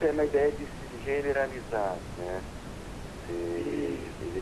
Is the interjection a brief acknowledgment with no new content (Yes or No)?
No